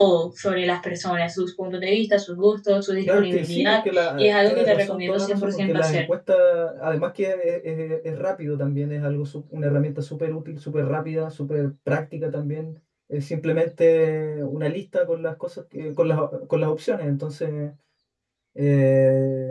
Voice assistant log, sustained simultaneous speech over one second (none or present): present